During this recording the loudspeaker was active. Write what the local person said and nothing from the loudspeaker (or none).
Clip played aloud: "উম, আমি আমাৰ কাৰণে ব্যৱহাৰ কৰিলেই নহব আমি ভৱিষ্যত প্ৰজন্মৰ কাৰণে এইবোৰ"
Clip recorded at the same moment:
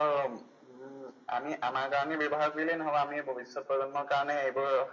none